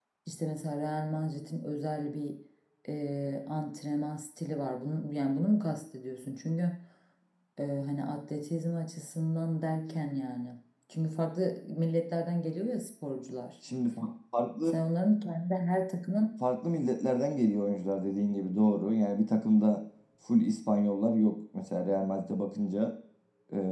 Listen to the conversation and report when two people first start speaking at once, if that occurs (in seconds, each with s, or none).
none